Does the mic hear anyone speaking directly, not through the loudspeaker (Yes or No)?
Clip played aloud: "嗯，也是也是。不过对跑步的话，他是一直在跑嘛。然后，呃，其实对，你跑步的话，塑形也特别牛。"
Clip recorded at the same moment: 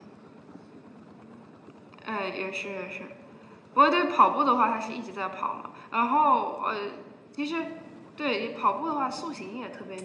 No